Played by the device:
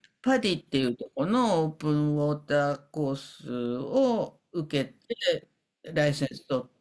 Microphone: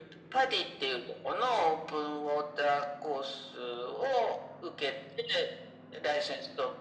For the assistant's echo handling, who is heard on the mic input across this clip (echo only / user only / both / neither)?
echo only